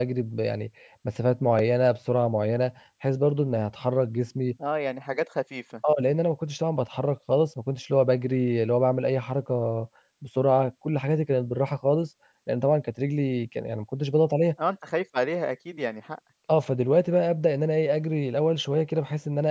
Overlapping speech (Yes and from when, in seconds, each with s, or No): No